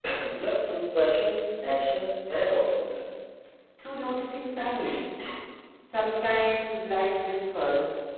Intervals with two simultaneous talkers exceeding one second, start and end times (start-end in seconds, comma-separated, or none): none